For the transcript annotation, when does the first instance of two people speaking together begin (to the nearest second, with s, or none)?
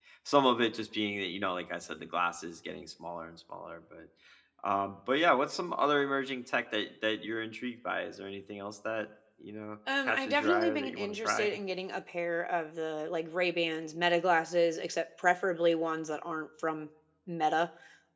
10 s